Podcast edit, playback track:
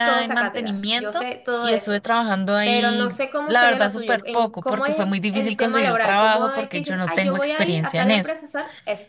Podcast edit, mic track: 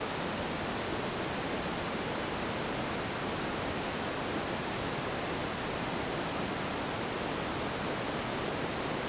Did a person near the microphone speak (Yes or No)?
No